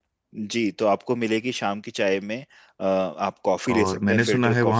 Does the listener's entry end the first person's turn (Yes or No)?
Yes